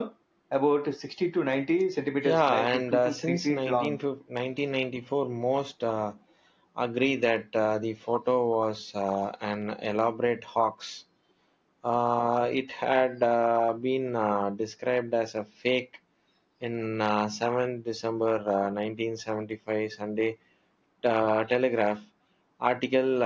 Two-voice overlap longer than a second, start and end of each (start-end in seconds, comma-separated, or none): 2.2-4.0